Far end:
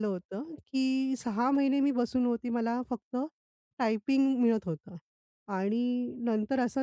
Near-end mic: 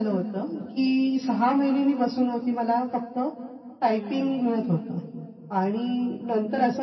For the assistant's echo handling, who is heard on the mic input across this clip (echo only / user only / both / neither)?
both